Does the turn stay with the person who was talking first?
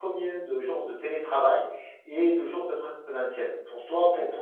Yes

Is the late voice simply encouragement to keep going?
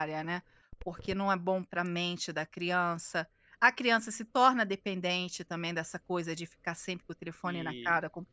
No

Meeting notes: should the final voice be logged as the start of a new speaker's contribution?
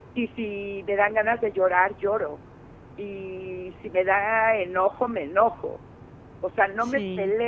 No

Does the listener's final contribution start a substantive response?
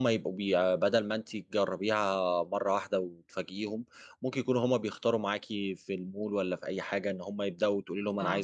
No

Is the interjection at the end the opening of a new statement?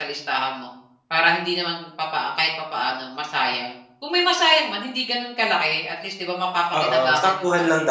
Yes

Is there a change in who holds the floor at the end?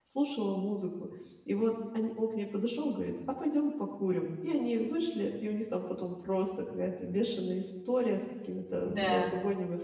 No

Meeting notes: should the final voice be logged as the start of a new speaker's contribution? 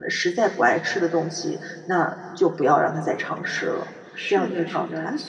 Yes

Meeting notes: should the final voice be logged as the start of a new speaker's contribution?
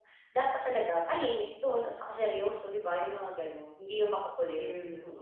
Yes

